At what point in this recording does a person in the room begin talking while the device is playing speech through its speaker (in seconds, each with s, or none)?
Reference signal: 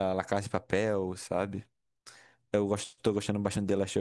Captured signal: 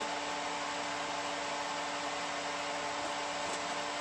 none